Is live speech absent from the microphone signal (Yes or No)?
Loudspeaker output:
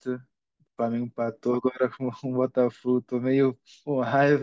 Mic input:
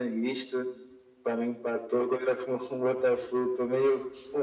Yes